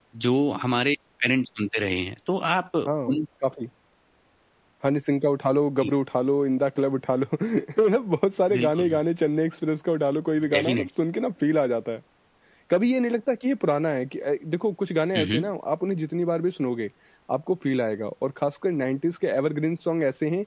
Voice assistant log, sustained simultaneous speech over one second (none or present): none